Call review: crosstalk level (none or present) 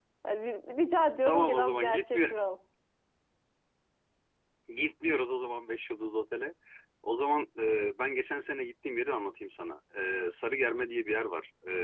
present